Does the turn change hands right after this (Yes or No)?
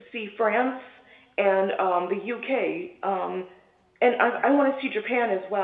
No